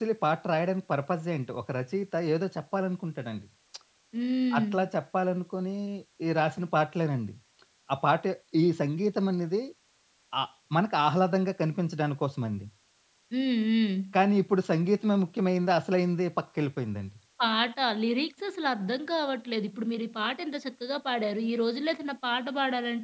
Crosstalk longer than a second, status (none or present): none